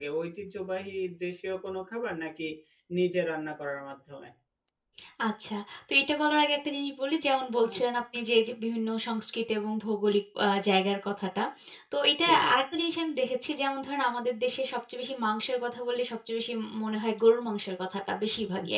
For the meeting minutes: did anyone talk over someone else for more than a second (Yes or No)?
No